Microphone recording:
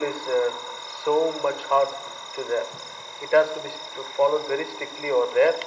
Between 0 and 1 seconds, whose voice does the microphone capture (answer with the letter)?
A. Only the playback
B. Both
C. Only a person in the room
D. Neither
A